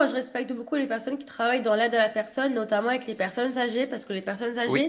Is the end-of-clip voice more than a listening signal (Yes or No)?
No